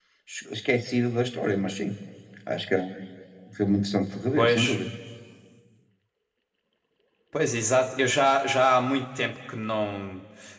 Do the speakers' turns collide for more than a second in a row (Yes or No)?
No